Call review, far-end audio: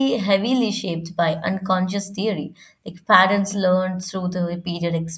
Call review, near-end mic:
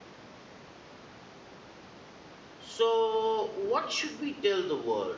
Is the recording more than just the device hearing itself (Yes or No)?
Yes